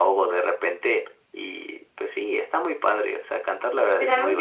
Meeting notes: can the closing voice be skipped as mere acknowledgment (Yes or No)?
No